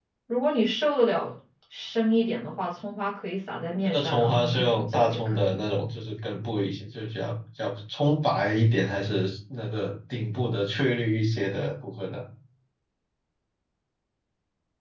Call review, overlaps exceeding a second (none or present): present